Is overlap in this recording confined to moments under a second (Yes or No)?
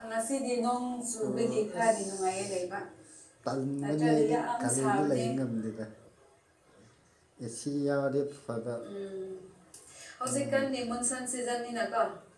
No